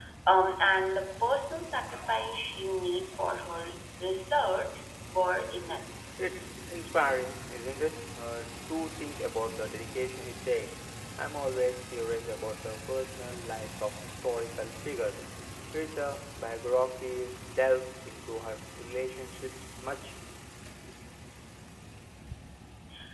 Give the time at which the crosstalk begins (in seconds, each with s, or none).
none